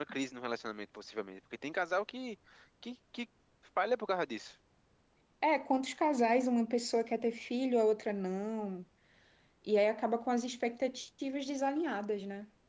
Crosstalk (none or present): none